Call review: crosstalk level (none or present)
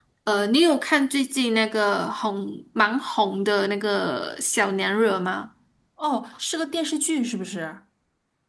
none